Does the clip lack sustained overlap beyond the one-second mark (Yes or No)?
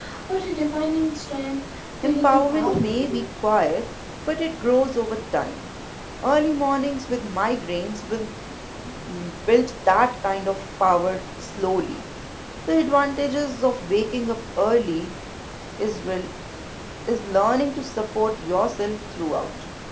No